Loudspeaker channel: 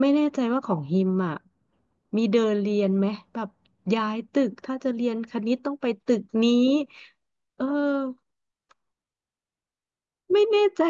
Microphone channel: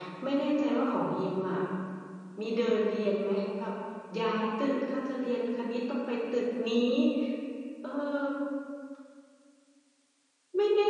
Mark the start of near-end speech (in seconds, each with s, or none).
none